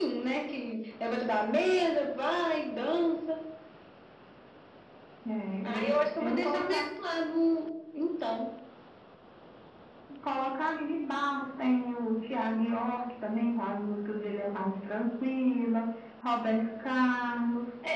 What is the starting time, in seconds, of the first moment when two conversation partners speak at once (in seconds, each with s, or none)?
5.6 s